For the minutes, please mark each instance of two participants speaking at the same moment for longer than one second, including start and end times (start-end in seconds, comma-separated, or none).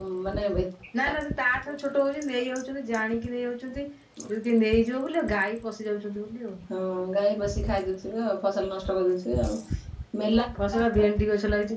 none